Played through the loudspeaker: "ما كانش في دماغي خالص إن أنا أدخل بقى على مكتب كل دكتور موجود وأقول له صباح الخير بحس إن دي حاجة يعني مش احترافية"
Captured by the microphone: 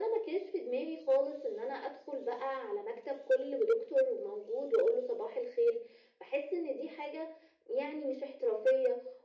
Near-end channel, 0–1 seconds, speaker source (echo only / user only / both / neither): echo only